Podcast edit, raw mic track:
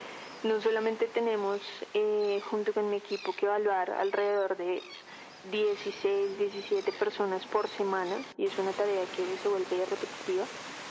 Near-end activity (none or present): none